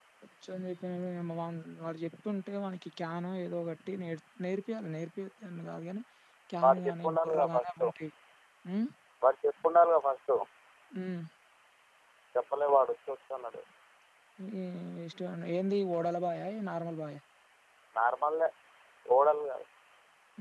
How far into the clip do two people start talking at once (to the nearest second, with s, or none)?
7 s